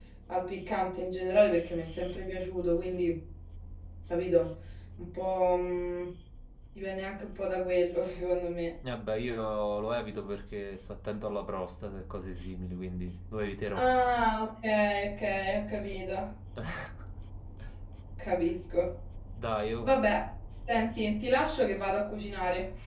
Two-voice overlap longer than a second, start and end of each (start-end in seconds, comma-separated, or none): none